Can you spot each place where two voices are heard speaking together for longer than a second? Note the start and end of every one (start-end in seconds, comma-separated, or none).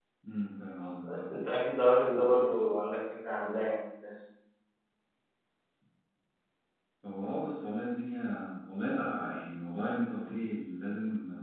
none